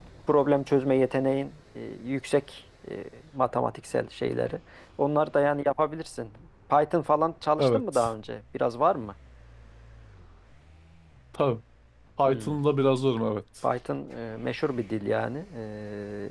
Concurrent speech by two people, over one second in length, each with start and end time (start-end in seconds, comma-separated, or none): none